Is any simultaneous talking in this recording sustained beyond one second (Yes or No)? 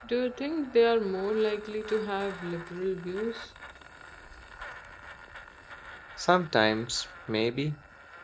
No